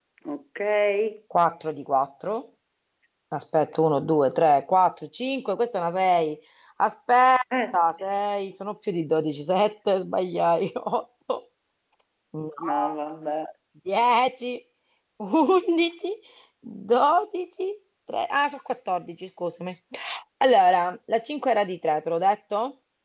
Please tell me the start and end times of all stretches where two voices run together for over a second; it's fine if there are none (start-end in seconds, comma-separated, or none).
none